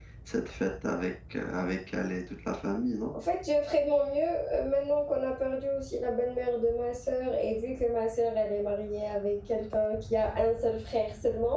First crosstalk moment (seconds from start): none

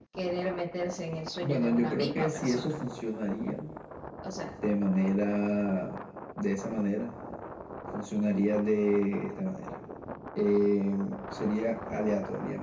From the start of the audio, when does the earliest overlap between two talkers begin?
1.4 s

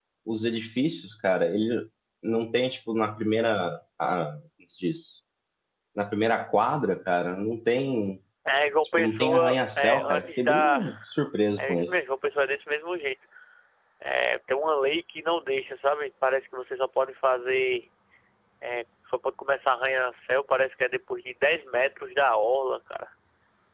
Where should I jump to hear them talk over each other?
9.0 s

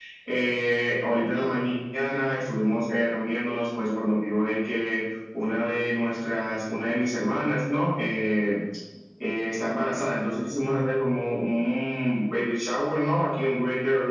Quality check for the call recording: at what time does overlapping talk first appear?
none

